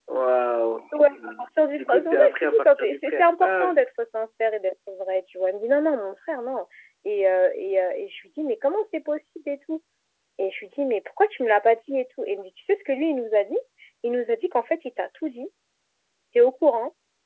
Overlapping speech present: Yes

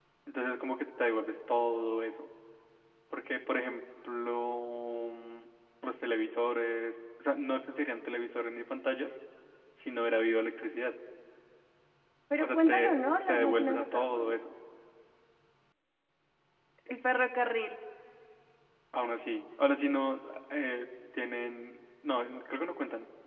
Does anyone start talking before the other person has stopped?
Yes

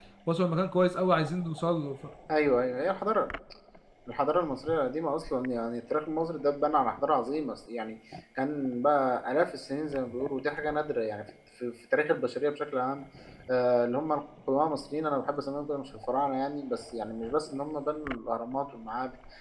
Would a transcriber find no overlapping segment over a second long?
Yes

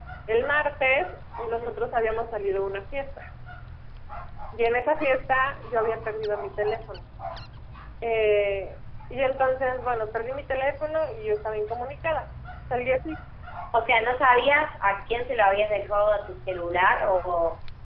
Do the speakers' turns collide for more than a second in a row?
No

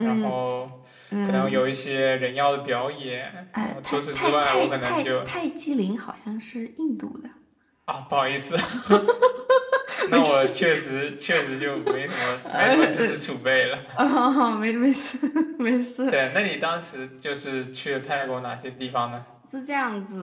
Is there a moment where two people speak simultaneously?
Yes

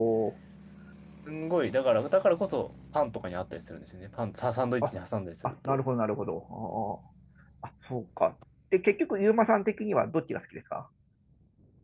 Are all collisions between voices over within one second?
Yes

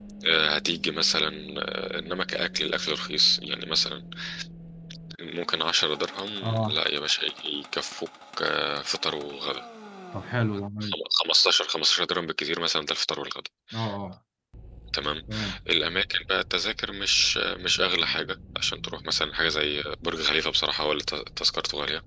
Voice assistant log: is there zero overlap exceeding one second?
Yes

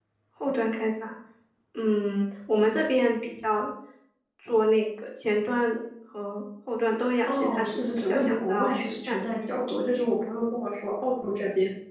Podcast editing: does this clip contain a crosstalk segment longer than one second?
Yes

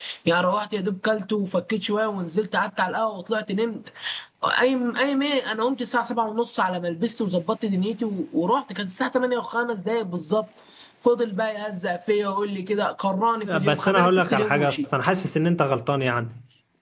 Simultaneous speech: Yes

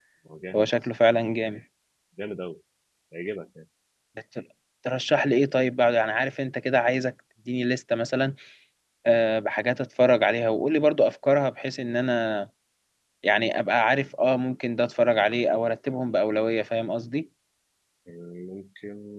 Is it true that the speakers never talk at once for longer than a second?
Yes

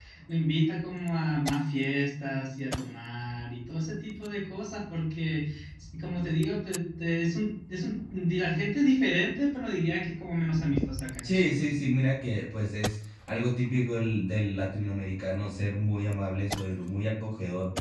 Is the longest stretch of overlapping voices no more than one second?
Yes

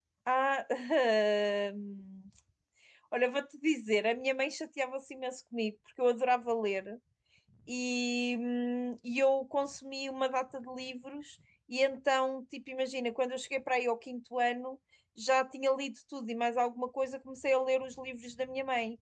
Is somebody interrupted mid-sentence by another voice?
No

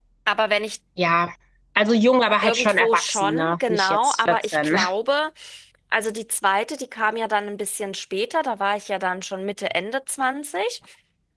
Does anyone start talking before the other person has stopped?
Yes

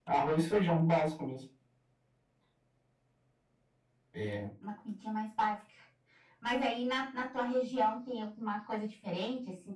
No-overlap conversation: Yes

